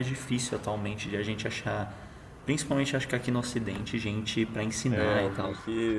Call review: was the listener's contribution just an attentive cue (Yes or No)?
No